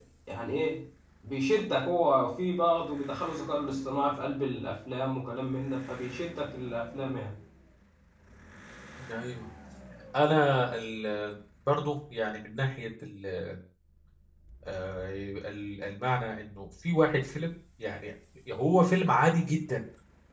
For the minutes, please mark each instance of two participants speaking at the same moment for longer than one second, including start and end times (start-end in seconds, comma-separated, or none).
none